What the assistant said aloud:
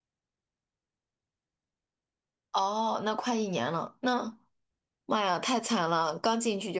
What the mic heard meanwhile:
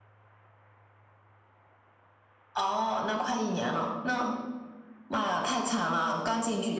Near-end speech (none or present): none